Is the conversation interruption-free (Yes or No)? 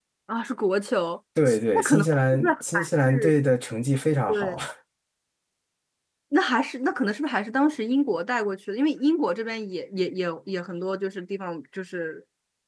No